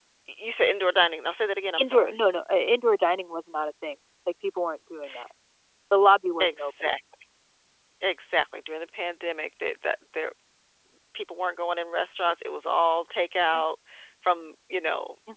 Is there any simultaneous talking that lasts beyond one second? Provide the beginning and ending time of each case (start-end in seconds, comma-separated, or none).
none